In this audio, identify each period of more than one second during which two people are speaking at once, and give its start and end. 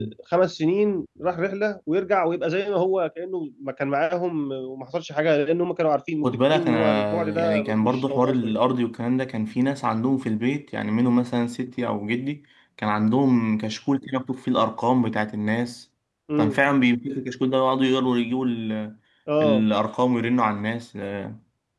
6.2-8.6

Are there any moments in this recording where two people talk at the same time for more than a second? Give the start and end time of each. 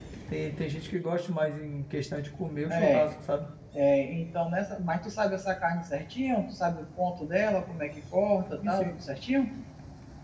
none

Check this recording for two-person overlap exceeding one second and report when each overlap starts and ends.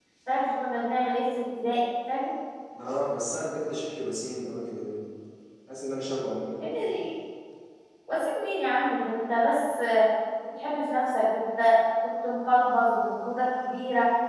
none

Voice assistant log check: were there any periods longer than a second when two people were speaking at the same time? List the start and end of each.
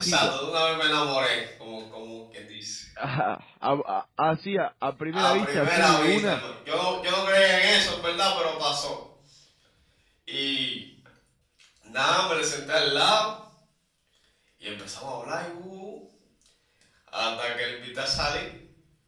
5.1-6.4

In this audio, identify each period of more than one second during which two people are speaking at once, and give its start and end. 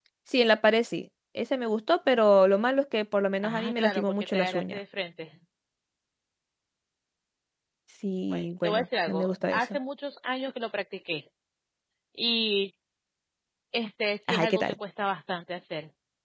3.4-4.8, 8.3-9.8

